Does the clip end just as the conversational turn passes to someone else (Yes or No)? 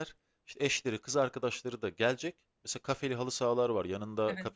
No